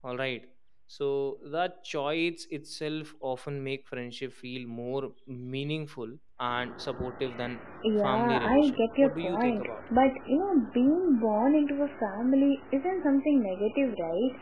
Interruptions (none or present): present